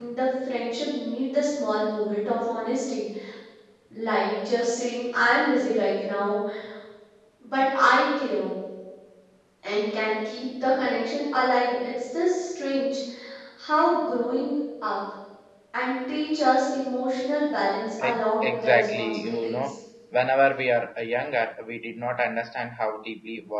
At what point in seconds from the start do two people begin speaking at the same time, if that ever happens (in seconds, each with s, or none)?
18.0 s